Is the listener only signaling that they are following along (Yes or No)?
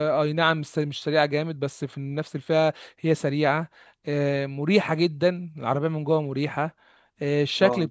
Yes